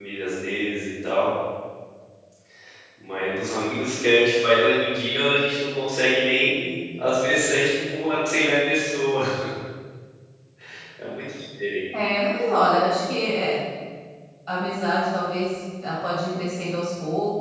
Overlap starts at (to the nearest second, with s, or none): none